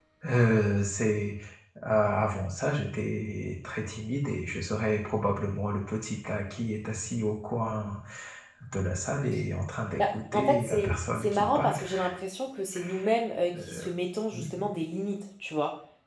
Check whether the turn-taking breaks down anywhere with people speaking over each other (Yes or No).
Yes